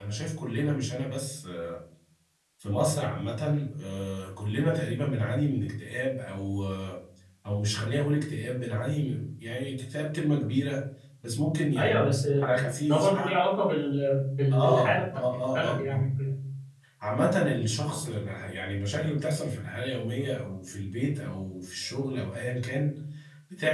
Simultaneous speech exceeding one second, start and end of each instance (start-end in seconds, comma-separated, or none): 11.8-13.4, 14.5-16.1